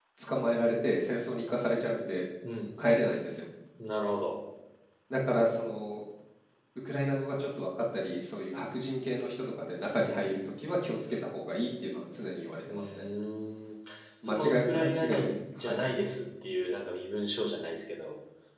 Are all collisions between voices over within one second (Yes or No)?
No